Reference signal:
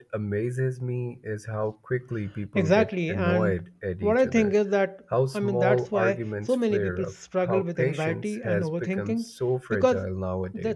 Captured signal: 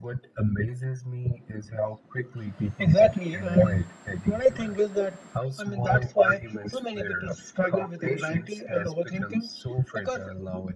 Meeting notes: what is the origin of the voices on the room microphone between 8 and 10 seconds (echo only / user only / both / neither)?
echo only